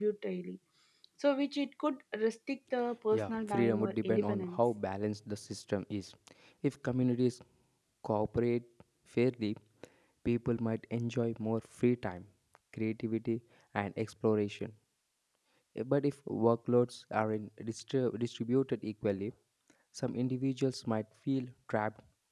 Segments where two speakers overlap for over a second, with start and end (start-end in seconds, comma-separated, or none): 3.1-4.6